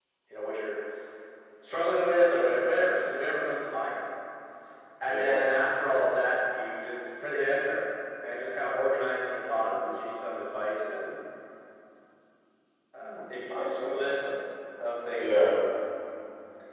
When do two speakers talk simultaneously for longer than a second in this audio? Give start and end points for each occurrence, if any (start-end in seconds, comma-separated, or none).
13.0-14.3